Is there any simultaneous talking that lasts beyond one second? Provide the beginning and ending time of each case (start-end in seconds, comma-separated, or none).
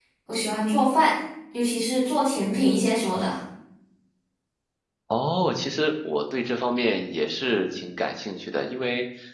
none